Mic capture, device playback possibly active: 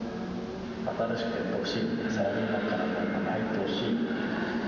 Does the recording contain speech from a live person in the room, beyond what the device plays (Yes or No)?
Yes